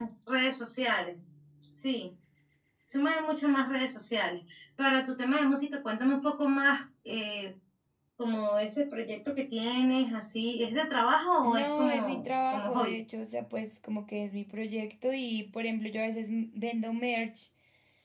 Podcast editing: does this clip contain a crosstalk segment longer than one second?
Yes, from 11.4 s

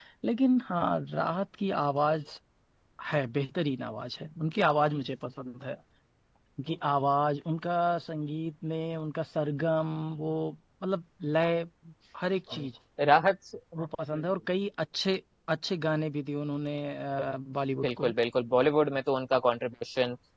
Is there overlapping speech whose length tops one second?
No

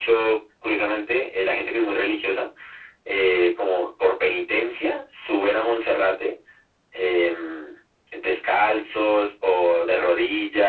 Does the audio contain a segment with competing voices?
No

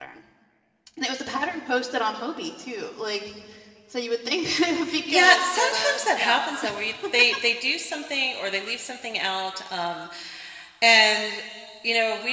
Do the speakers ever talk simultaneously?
Yes, from 4.9 s

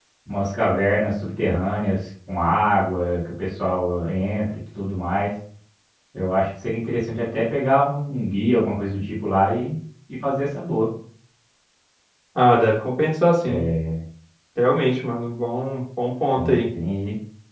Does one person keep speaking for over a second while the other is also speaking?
No

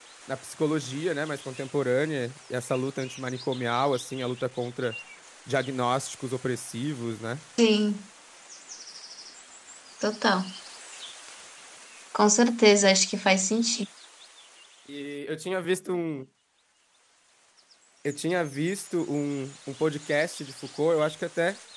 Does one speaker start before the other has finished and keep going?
No

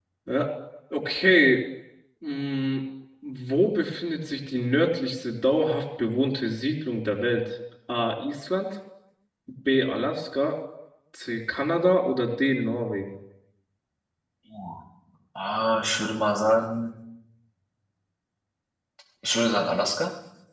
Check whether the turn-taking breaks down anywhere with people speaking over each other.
No

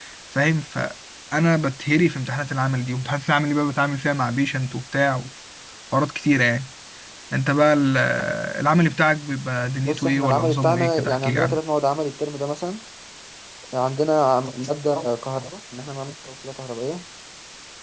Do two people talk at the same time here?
Yes, from 9.8 s

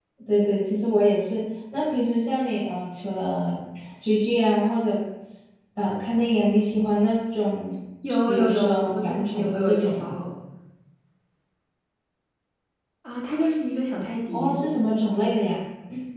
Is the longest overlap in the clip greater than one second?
Yes, from 8.3 s

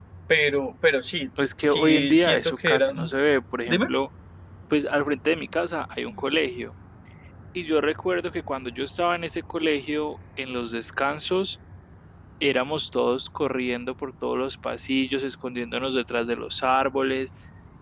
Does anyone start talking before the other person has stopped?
Yes, from 1.7 s

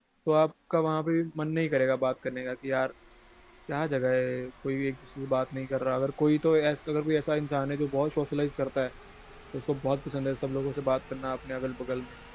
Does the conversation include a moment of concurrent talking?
No

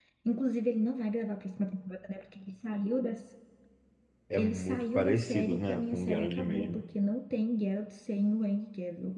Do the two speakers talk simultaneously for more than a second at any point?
Yes, from 4.4 s

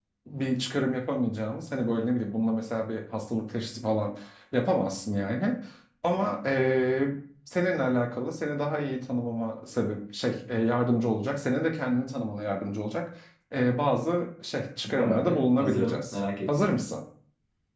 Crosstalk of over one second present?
Yes, from 14.8 s

